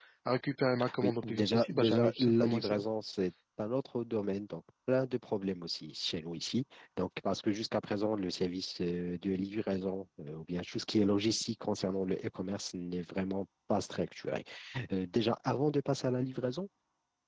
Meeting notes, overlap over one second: present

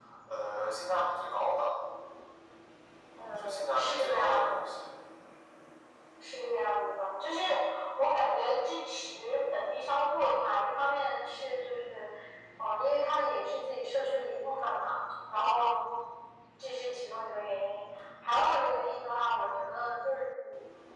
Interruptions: present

